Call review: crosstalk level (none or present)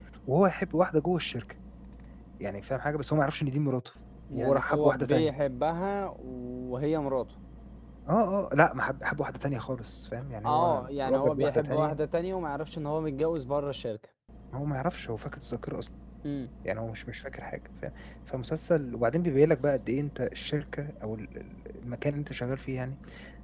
present